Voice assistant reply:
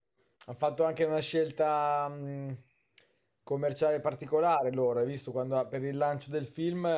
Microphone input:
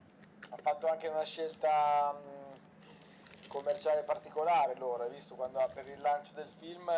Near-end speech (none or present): none